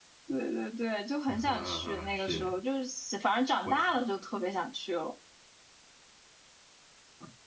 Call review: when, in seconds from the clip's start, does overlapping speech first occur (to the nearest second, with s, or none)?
1 s